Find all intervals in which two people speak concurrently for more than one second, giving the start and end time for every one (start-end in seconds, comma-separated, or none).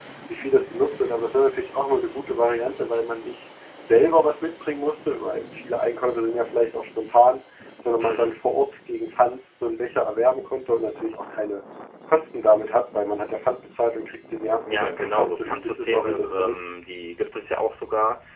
14.7-16.5